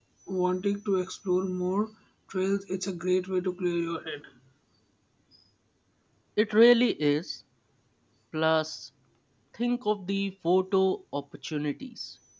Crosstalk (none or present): none